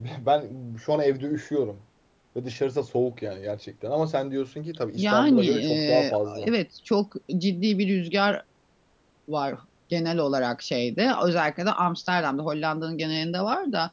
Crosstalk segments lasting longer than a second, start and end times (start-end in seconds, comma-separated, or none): 5.0-6.5